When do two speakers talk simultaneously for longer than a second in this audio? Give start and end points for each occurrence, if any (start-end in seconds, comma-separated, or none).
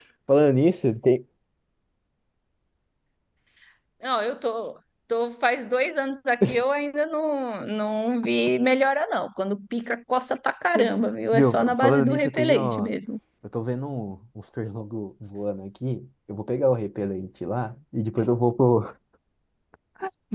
11.3-12.9